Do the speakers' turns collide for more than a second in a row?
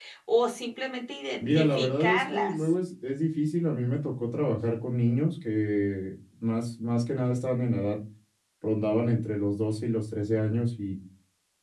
Yes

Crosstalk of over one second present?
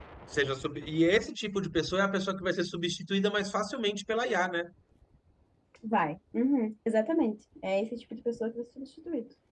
No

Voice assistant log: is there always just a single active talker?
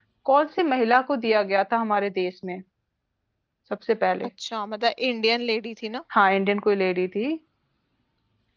Yes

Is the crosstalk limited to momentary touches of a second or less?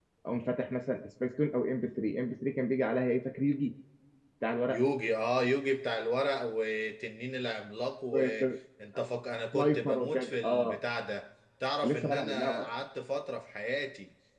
No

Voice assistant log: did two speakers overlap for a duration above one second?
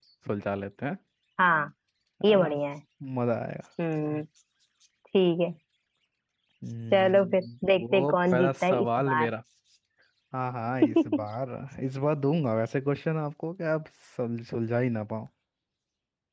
Yes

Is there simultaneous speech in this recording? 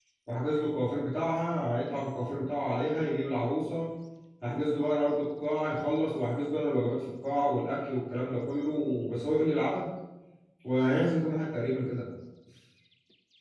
No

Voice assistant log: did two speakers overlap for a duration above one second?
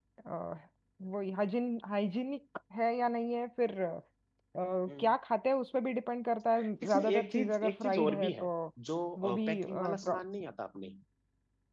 Yes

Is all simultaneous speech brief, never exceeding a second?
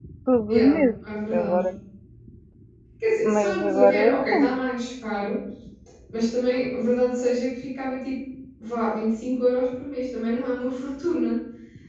No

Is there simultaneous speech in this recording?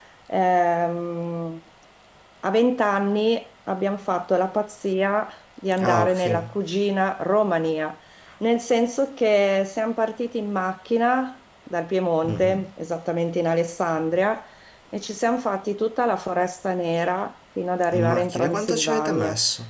Yes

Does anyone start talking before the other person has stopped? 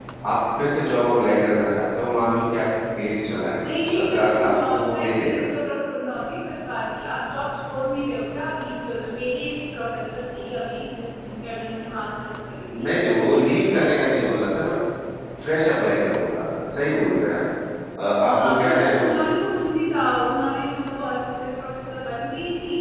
Yes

